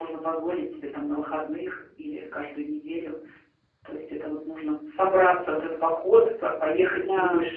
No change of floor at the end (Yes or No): Yes